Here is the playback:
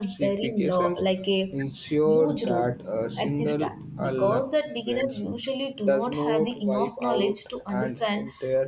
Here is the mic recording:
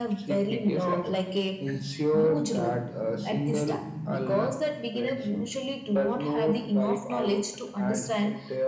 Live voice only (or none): none